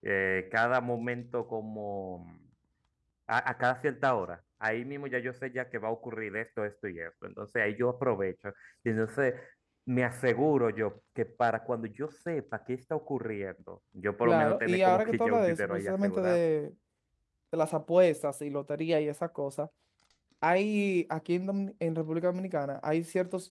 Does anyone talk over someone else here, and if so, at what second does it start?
14.2 s

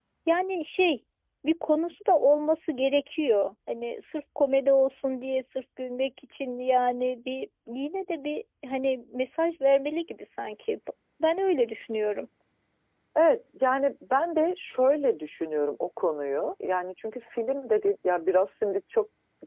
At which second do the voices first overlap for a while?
none

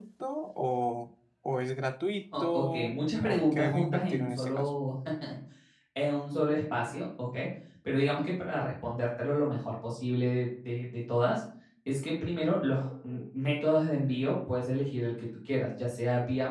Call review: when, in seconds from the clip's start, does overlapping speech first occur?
2.3 s

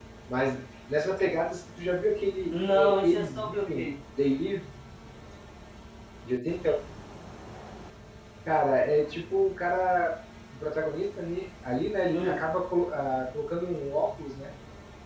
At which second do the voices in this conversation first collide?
2.5 s

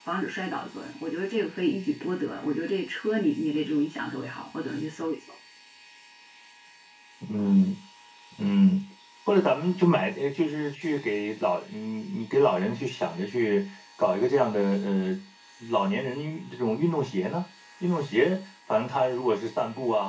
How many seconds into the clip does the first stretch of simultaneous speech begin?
none

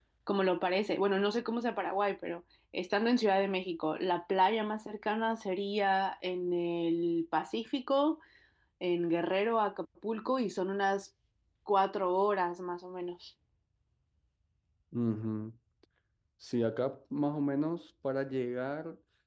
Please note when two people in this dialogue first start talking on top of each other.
none

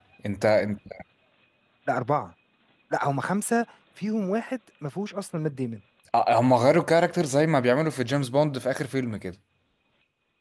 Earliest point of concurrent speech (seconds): none

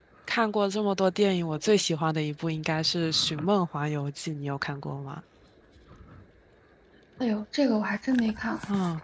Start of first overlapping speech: none

